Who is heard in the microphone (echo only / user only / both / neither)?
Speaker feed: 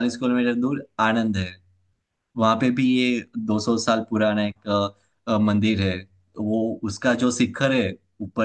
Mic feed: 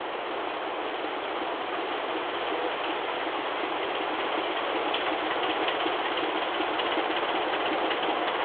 neither